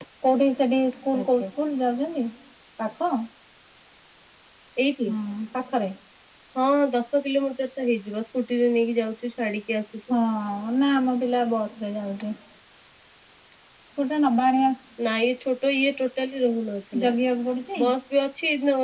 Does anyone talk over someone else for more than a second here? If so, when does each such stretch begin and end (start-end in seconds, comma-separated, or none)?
none